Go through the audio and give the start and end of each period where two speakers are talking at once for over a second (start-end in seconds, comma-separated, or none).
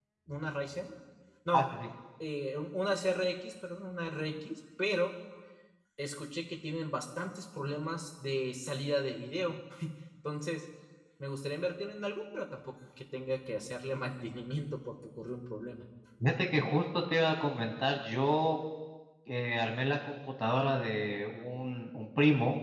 none